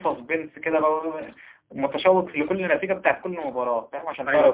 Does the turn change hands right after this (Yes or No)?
Yes